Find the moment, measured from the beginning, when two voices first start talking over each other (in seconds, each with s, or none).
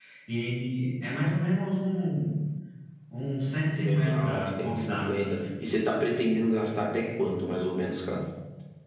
3.8 s